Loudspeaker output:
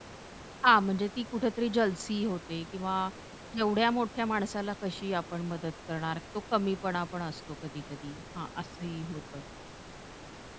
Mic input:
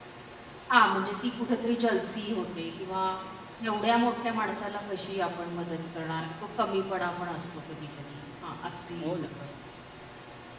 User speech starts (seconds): 9.0 s

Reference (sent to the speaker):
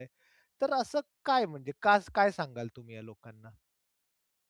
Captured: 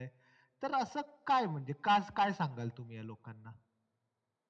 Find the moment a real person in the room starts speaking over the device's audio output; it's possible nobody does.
none

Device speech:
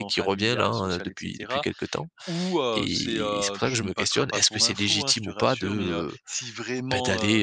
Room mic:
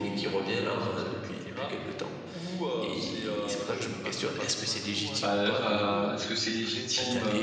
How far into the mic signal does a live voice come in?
5.2 s

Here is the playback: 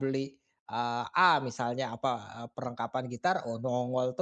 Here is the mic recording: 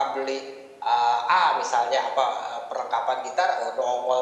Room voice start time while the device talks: none

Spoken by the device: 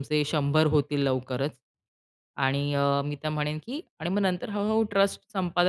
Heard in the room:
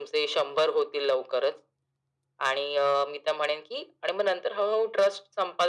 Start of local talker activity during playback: none

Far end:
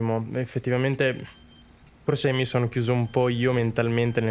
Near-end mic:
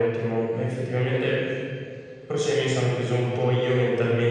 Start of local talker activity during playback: none

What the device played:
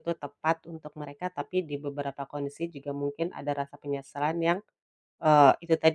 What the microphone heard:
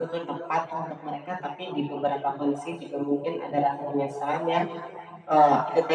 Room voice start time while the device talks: none

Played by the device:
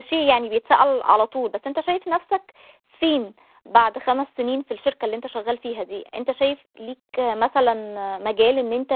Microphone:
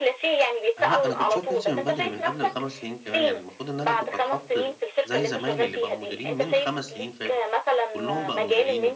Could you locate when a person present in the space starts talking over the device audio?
0.8 s

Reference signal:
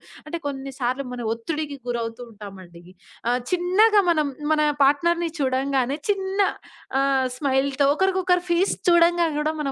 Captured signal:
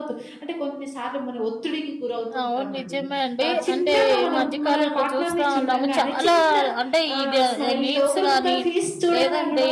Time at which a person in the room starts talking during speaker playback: 2.4 s

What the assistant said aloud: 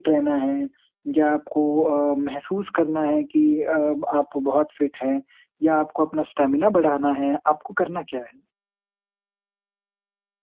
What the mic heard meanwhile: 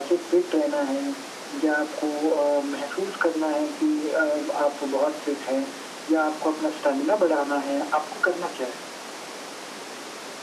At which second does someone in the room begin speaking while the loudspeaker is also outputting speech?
none

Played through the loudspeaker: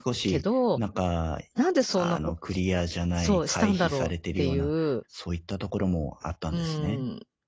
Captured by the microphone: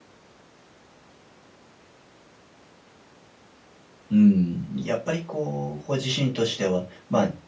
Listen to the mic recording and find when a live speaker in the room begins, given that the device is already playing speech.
4.1 s

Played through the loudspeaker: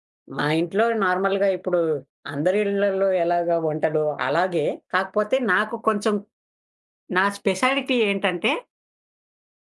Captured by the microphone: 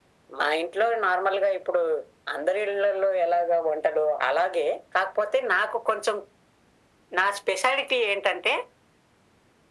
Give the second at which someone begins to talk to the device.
none

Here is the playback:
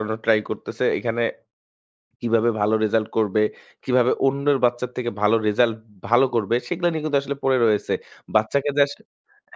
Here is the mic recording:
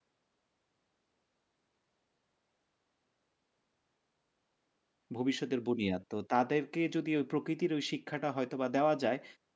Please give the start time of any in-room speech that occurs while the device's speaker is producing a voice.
5.2 s

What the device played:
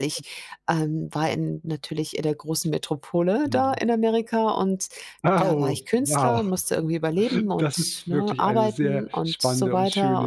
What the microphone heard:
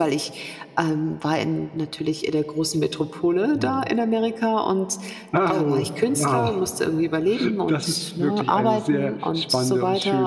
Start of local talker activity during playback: none

